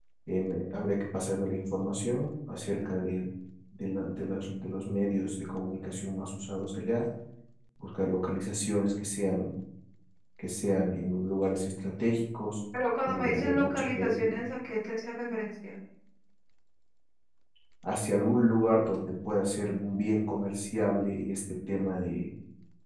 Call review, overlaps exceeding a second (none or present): present